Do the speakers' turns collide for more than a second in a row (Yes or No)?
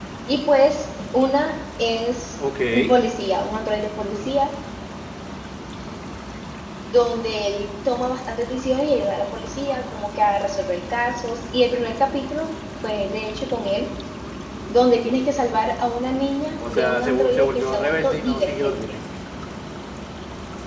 Yes